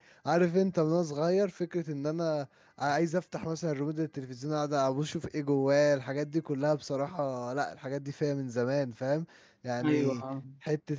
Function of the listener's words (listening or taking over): listening